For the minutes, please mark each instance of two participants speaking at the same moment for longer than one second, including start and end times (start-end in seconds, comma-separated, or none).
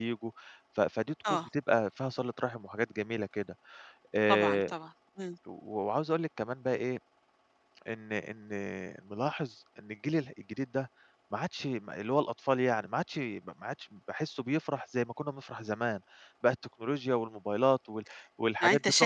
none